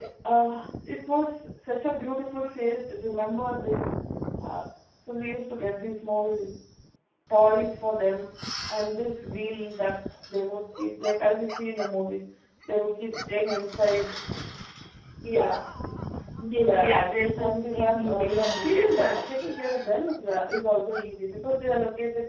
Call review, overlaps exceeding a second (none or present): present